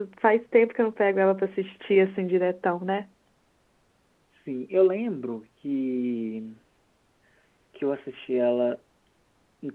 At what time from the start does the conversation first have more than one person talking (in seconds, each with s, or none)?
none